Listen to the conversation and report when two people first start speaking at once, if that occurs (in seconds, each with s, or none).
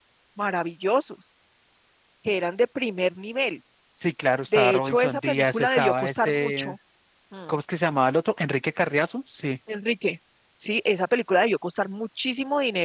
4.5 s